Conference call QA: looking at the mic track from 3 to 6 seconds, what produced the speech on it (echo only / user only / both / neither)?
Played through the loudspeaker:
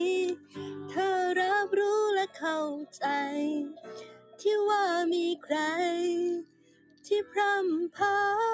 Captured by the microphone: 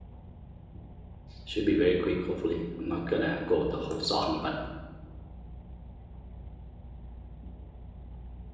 user only